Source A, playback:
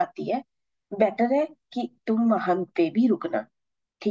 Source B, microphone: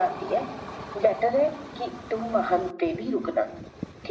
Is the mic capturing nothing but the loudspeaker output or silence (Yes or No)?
Yes